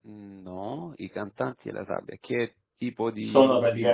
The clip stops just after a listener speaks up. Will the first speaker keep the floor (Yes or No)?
No